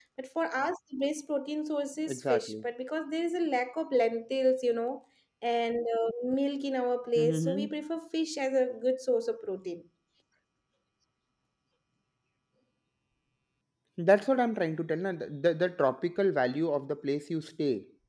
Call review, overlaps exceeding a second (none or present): none